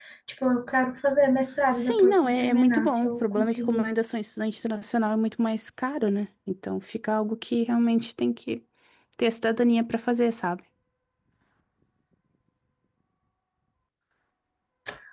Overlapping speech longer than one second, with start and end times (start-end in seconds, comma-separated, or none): 1.7-3.9